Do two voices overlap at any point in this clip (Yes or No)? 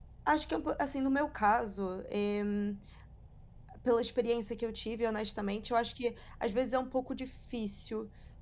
No